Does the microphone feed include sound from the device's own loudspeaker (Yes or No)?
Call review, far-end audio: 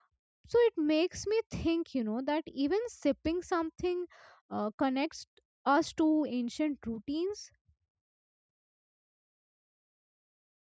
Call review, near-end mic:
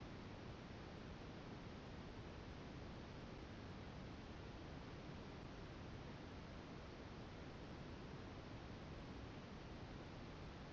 No